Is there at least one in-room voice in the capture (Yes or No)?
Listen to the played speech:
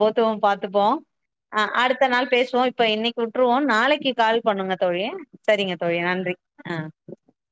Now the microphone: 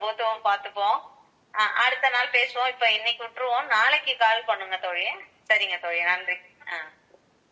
No